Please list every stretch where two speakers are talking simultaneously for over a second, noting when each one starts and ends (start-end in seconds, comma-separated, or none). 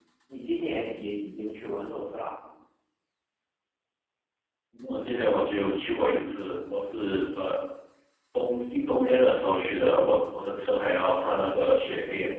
none